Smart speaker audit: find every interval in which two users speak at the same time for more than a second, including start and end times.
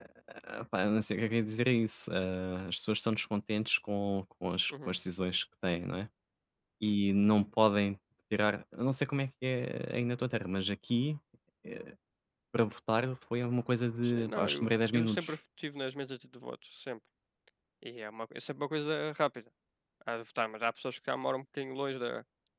14.0-15.4

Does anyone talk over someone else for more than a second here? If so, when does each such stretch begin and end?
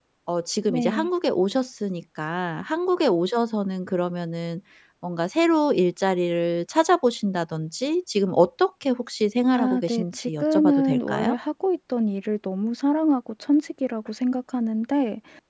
9.6-11.3

